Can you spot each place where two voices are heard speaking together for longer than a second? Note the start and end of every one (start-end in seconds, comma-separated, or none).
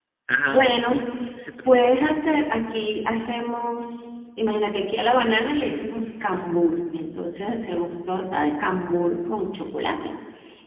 none